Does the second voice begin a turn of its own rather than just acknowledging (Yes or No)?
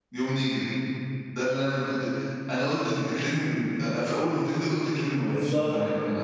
Yes